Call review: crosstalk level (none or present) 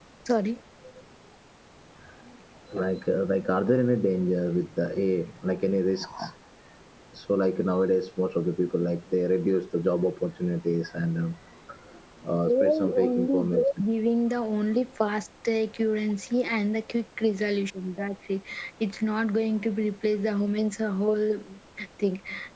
present